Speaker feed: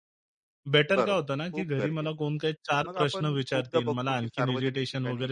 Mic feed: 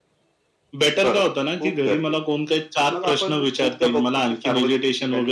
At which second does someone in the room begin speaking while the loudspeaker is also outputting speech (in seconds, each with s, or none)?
none